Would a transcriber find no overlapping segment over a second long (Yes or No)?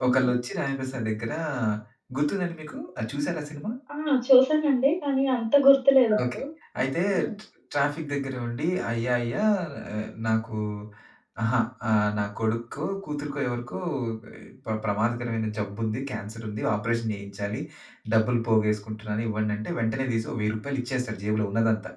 Yes